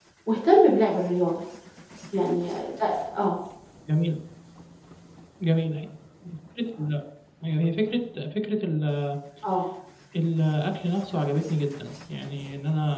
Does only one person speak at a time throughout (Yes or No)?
Yes